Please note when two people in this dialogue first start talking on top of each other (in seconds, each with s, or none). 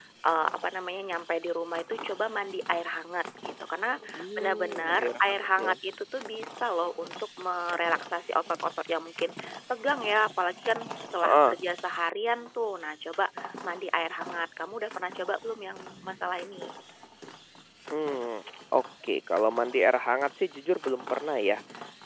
4.1 s